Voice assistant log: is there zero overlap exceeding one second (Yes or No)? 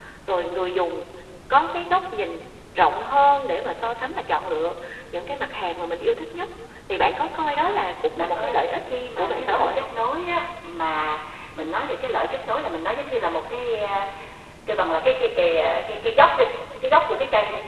No